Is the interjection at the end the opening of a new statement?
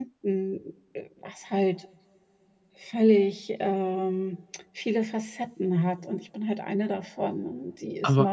No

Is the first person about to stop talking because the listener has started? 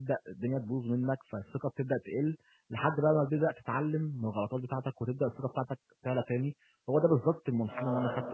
Yes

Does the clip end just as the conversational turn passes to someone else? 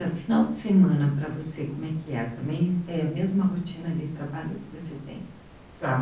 Yes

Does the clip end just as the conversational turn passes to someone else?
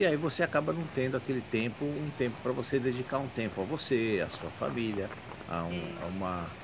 No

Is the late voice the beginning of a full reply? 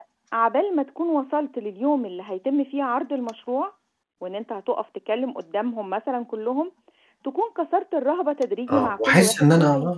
Yes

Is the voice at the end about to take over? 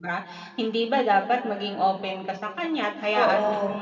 No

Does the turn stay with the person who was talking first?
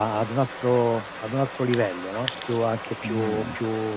Yes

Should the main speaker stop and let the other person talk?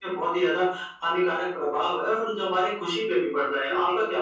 Yes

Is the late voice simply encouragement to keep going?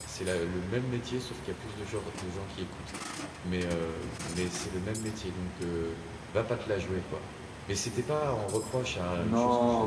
No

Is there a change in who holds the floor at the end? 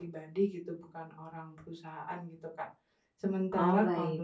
No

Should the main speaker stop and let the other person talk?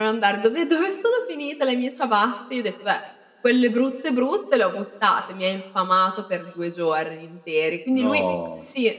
No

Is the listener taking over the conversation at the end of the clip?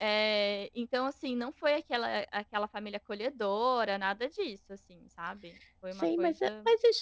Yes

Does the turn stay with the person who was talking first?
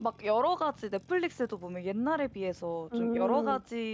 Yes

